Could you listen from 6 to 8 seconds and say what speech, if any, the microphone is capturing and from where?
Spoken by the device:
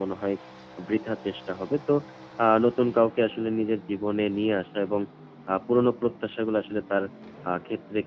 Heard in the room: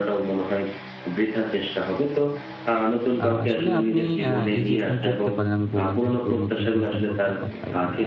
both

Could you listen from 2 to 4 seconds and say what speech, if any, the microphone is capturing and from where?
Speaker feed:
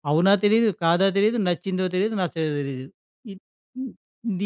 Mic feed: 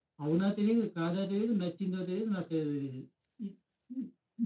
echo only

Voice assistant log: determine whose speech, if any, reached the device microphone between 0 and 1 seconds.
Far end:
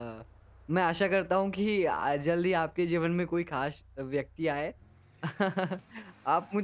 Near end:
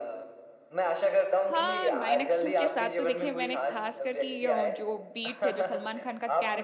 echo only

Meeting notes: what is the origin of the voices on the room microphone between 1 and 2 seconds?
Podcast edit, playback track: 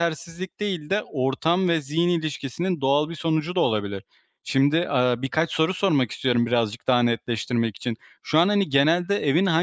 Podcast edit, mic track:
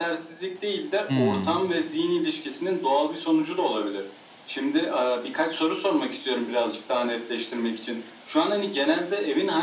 both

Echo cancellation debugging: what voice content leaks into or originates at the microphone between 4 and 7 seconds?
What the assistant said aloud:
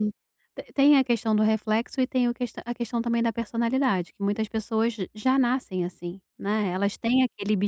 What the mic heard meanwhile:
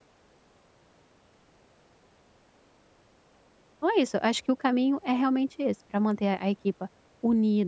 user only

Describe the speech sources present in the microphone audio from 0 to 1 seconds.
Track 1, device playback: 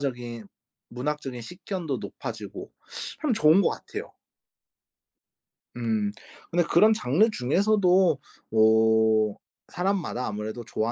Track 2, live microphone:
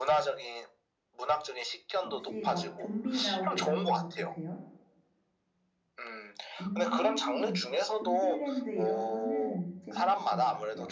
echo only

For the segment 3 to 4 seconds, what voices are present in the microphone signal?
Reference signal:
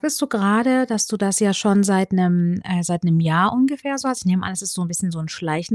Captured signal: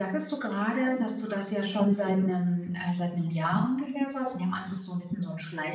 echo only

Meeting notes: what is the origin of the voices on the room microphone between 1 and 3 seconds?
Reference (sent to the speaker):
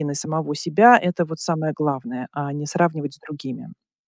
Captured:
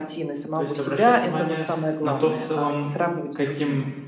both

